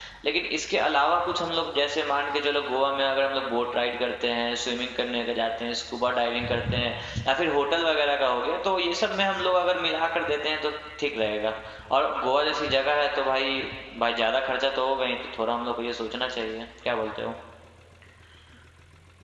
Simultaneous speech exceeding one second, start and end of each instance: none

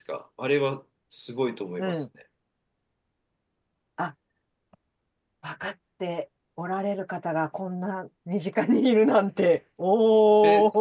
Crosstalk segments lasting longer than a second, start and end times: none

